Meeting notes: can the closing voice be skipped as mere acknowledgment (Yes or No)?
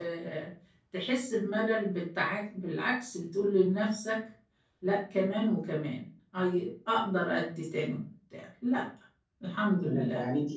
No